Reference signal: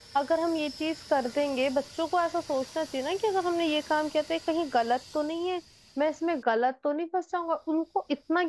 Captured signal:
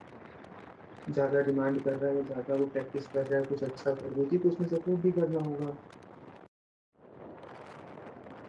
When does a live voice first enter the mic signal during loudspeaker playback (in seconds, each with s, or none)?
1.1 s